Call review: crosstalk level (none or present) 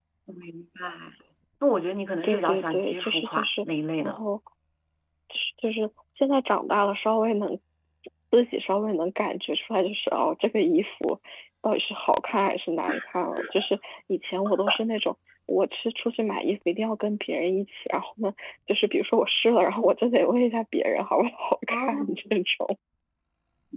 present